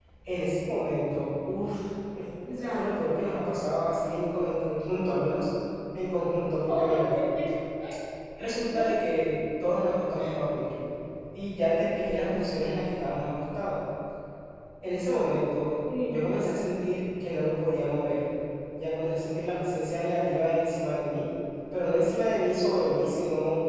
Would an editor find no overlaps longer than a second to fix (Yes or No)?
Yes